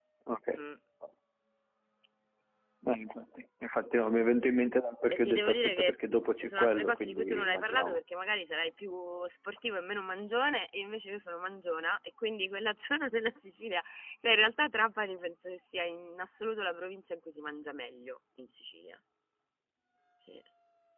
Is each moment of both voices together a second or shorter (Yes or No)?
No